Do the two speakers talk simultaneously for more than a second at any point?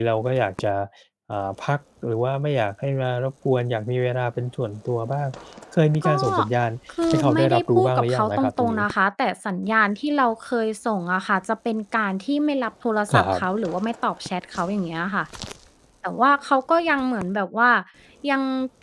Yes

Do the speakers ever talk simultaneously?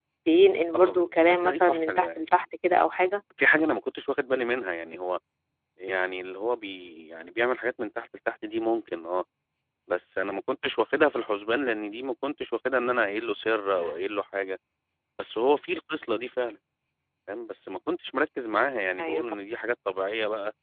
Yes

